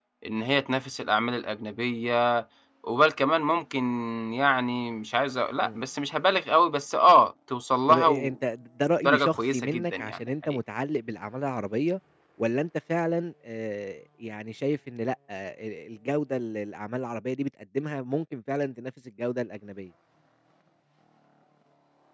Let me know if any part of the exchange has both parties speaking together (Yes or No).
Yes